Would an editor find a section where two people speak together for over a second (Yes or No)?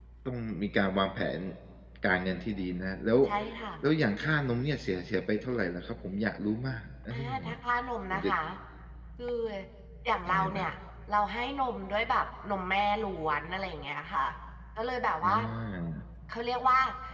No